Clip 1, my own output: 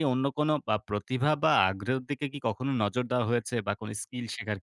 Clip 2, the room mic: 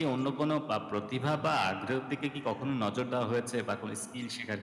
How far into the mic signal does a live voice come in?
none

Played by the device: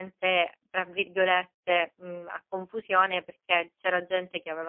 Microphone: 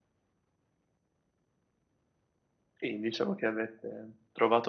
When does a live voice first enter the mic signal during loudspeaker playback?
3 s

